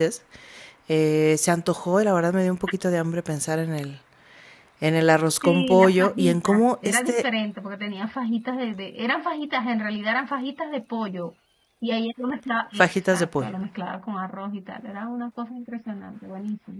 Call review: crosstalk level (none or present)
present